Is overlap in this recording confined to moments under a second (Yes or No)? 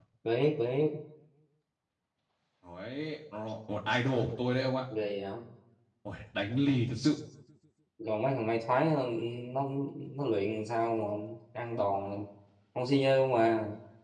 Yes